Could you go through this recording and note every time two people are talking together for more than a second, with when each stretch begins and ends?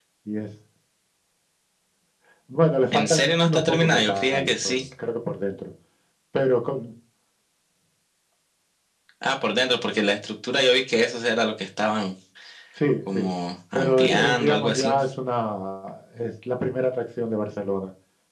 2.9-4.8, 13.7-15.0

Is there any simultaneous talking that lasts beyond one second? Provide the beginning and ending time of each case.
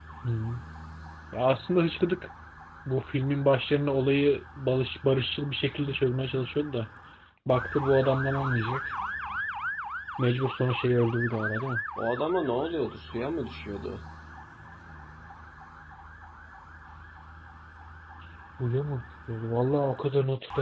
none

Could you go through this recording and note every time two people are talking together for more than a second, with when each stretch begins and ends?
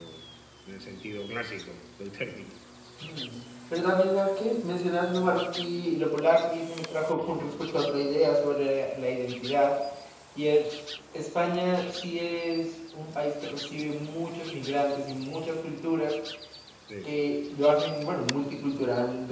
none

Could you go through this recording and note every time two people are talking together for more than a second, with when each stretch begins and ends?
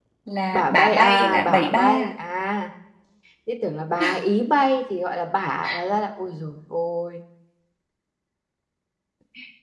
0.5-2.1

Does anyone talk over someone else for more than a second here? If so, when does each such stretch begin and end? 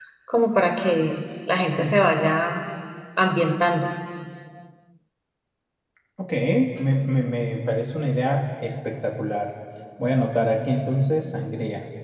none

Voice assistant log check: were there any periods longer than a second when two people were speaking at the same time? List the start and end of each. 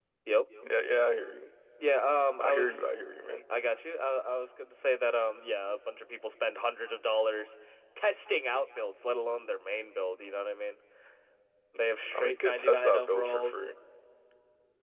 12.1-13.5

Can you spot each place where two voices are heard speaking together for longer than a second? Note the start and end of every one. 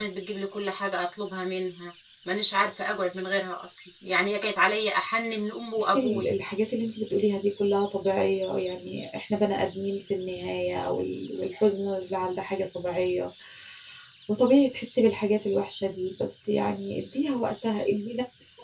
none

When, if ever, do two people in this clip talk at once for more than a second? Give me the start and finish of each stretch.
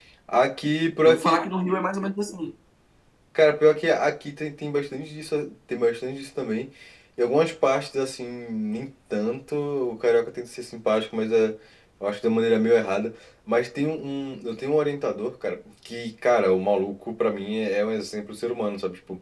none

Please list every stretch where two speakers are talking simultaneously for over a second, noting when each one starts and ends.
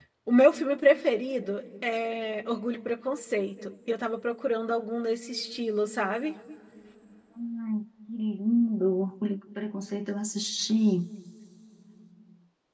none

